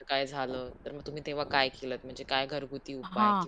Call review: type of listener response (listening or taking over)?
taking over